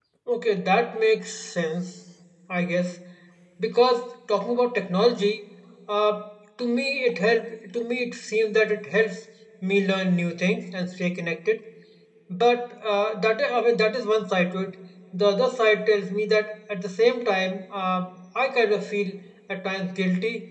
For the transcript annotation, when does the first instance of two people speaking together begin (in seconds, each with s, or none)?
none